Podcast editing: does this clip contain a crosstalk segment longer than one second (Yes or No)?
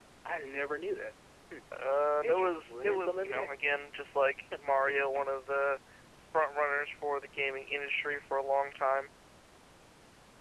Yes